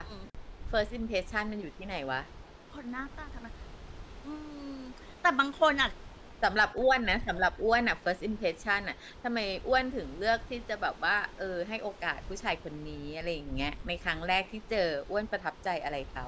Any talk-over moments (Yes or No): No